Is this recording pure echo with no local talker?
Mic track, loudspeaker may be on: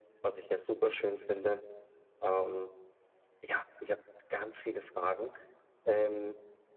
Yes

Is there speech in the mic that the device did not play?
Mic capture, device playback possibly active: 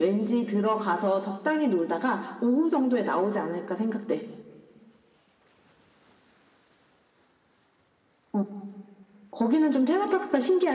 No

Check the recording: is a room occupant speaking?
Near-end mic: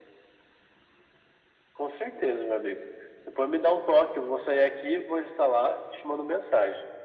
No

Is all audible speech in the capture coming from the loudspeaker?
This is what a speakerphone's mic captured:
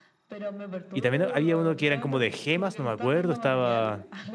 No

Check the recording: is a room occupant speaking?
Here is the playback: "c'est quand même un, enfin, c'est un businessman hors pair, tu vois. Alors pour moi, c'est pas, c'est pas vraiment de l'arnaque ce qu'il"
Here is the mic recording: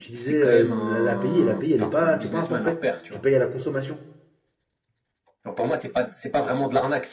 Yes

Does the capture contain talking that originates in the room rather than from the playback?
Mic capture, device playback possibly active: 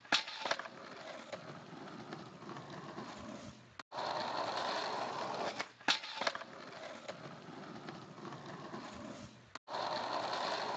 No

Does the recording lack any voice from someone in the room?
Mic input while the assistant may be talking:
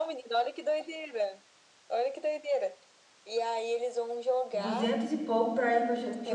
No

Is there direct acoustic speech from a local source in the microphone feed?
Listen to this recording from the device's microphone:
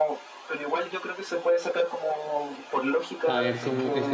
Yes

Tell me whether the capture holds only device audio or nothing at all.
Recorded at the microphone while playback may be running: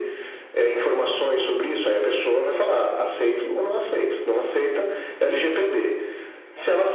Yes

